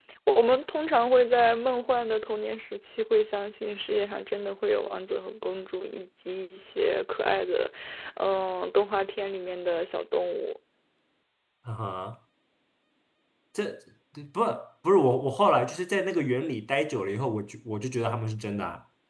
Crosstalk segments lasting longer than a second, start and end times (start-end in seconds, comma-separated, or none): none